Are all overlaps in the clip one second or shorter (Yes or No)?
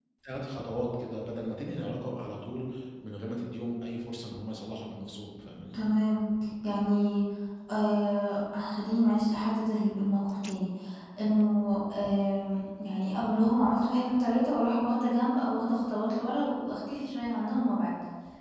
Yes